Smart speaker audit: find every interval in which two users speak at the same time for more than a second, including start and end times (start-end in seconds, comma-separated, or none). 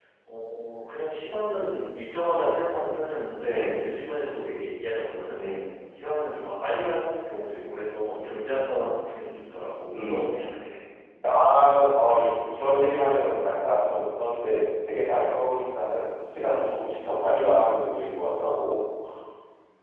none